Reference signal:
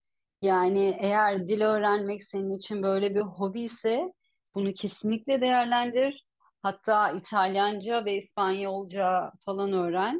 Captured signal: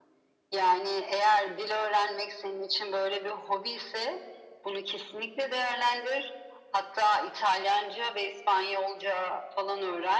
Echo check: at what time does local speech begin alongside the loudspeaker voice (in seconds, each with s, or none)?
none